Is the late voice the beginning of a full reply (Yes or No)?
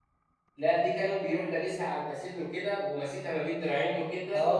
Yes